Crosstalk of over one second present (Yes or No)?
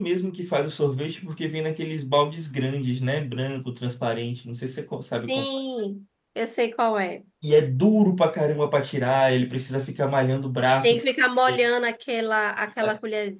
No